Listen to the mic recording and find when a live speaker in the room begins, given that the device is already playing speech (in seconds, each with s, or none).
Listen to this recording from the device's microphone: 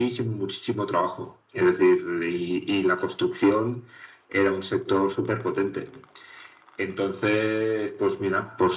none